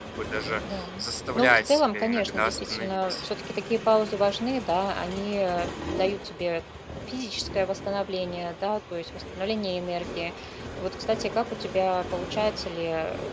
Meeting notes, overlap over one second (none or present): present